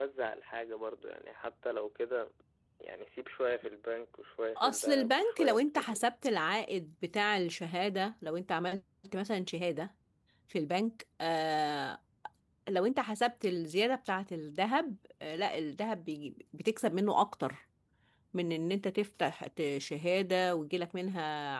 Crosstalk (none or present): present